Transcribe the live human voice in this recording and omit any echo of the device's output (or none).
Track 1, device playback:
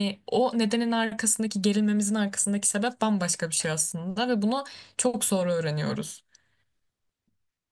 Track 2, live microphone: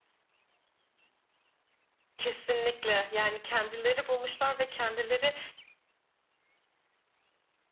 Kesinlikle yani kendileri bulmuşlar ve kendileri